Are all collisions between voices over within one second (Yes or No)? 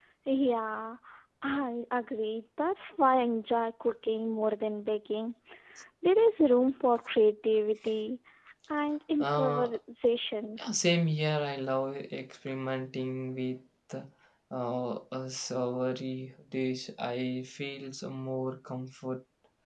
Yes